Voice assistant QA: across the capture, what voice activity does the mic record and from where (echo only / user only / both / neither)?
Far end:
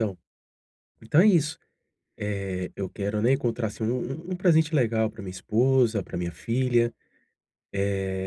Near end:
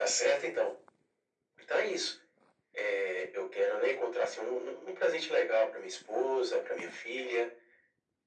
echo only